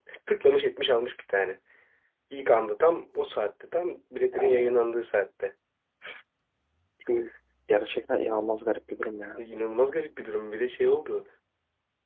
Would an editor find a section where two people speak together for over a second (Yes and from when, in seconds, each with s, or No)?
No